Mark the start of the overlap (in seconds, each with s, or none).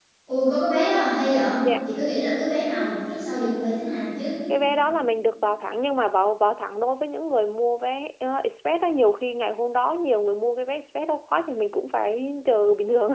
none